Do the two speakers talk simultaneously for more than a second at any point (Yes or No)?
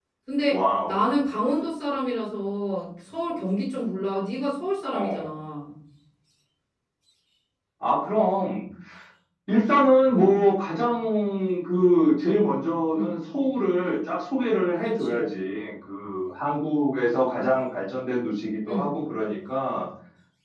No